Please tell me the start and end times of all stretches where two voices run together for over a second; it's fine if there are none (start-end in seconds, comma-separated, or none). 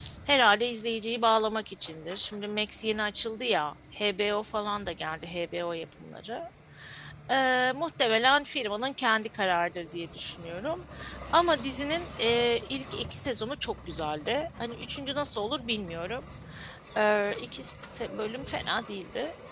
none